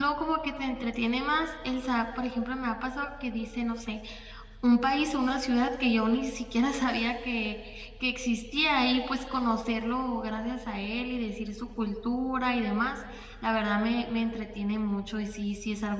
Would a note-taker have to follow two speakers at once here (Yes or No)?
No